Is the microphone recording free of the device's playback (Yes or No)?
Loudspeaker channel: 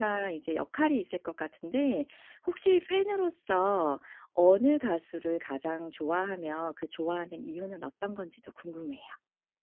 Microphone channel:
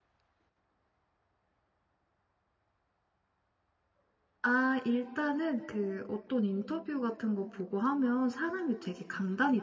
Yes